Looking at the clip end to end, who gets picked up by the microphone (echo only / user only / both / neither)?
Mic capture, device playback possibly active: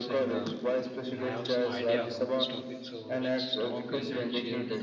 both